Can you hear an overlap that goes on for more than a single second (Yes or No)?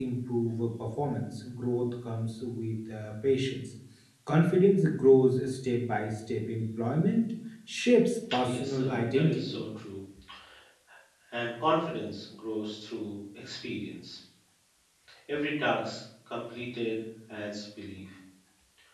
Yes